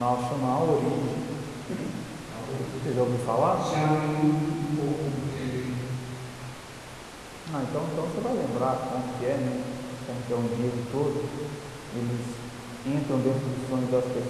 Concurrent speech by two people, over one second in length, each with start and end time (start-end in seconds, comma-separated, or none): none